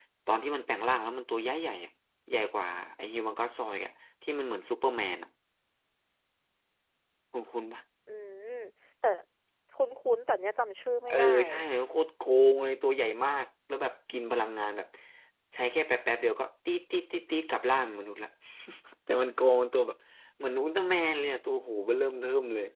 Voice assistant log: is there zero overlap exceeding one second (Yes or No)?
Yes